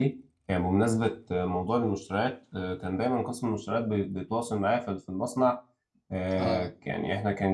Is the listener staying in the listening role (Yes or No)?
Yes